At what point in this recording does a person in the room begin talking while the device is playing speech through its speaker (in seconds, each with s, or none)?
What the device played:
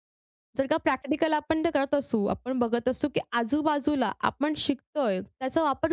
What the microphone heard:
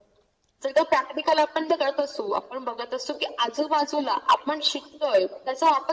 none